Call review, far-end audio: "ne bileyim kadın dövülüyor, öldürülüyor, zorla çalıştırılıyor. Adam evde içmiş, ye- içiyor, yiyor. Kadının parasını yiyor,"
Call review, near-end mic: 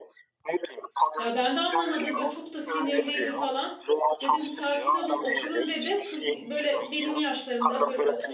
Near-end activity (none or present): present